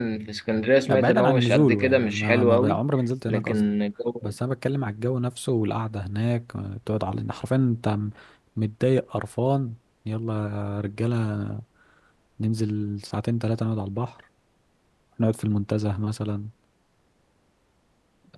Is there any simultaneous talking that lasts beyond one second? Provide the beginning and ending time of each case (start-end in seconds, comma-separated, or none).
0.9-2.8